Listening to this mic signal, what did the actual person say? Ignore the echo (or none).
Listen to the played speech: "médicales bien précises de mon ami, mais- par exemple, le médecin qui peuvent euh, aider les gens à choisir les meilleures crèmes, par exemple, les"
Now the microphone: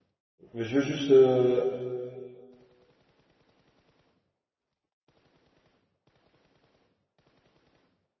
mais je veux juste euh,